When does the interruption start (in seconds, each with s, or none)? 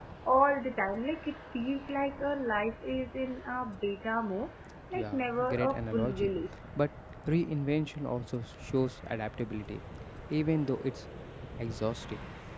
4.9 s